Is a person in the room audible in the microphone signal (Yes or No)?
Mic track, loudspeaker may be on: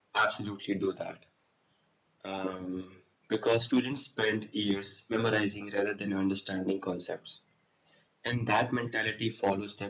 No